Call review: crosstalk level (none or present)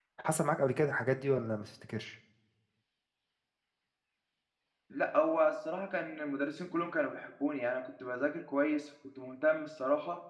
none